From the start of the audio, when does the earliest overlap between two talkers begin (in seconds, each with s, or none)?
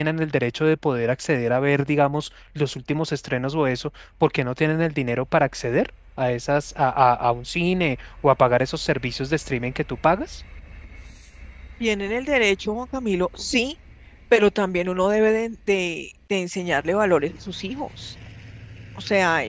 none